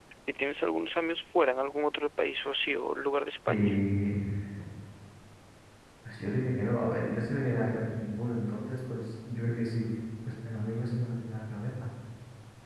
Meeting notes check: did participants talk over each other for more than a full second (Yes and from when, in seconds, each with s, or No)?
No